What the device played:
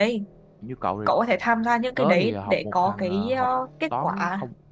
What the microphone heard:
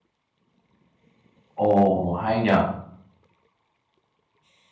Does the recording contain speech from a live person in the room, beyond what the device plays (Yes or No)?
Yes